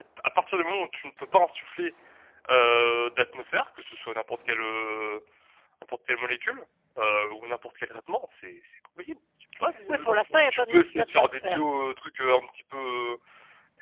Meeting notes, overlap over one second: present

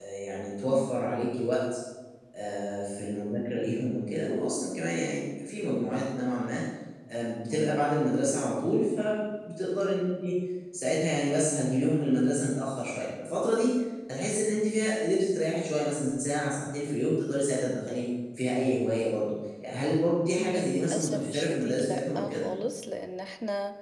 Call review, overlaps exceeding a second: present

